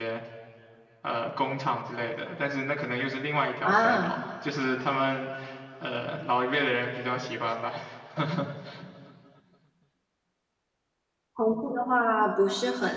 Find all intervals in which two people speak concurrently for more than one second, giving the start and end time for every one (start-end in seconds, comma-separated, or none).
none